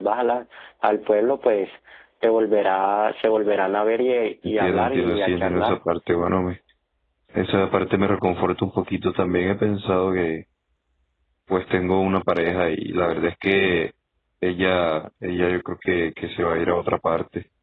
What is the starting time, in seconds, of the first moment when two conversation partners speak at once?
4.4 s

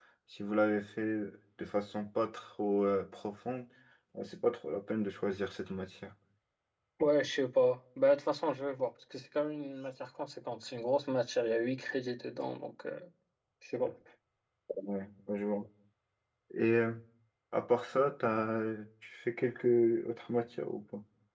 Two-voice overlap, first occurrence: none

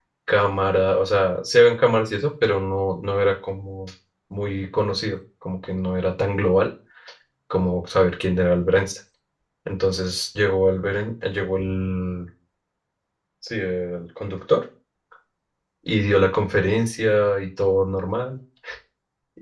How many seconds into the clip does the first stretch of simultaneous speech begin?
none

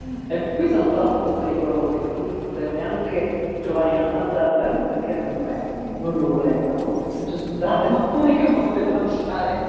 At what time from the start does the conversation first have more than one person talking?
none

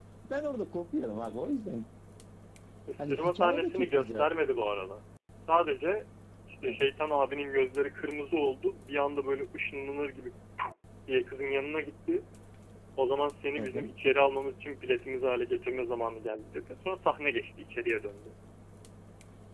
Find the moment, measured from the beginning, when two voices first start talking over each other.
3.0 s

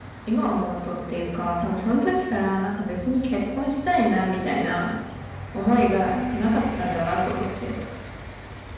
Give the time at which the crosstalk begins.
none

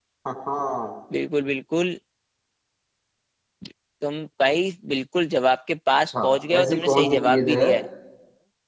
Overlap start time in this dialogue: 6.1 s

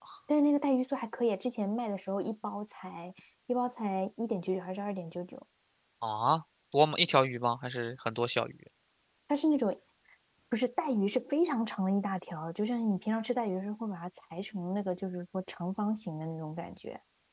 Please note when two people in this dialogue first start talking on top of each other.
none

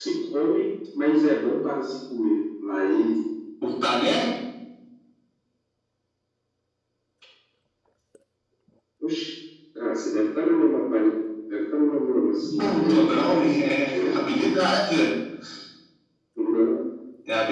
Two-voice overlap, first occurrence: 12.6 s

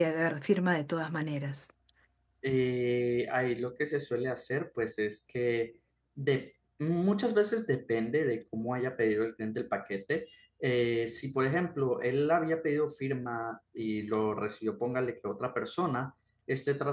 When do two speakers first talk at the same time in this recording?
none

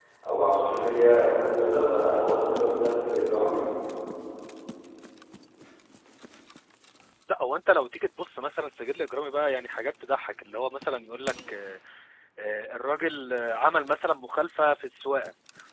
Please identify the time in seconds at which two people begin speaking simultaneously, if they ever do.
none

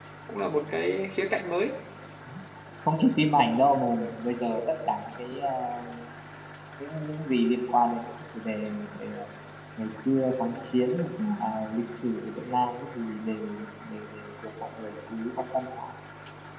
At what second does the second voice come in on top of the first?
none

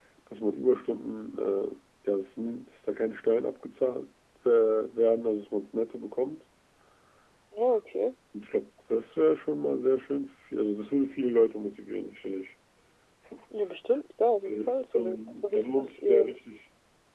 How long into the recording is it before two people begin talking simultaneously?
14.4 s

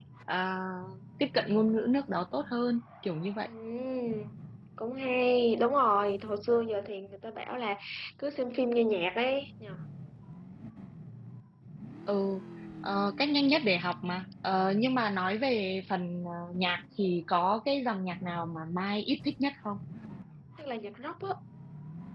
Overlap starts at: none

